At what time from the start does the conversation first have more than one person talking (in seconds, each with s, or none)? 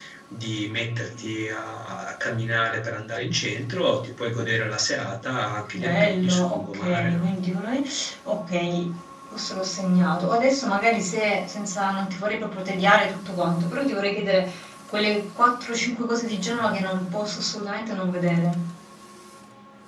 5.7 s